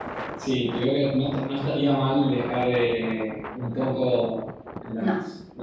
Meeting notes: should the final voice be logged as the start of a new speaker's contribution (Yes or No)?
No